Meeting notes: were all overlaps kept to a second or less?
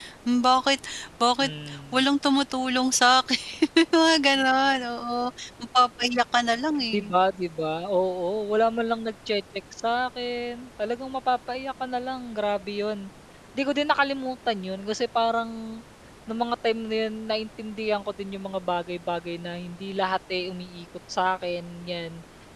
Yes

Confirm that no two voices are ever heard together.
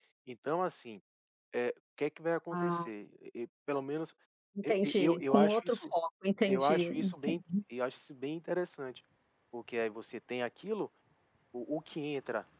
No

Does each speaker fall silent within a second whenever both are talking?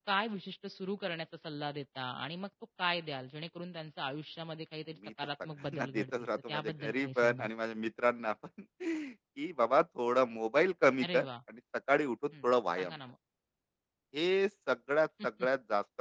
No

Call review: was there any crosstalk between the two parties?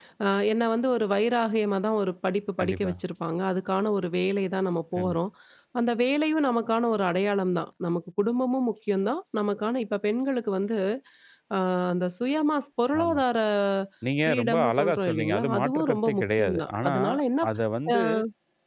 Yes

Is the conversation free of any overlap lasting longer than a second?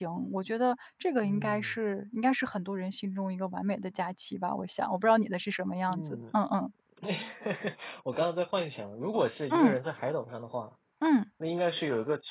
Yes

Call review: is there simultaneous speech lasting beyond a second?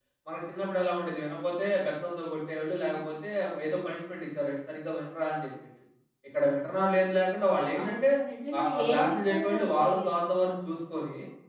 Yes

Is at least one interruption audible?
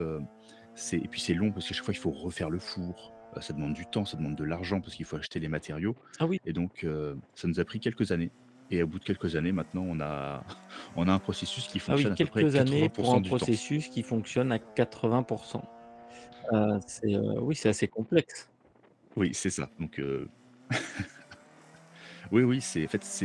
Yes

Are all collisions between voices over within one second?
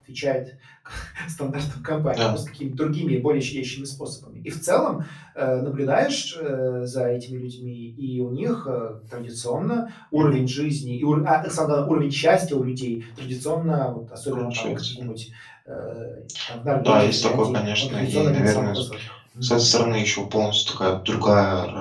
No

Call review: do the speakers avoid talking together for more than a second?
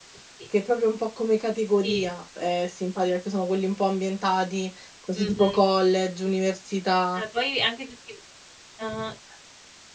Yes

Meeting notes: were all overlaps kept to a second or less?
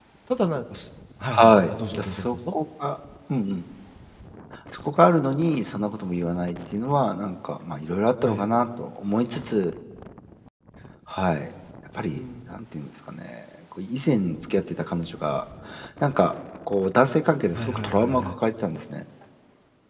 No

